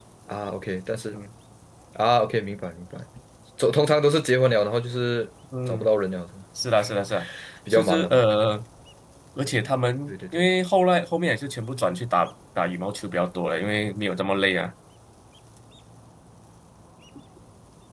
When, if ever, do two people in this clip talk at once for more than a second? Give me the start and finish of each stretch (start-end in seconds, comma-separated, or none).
none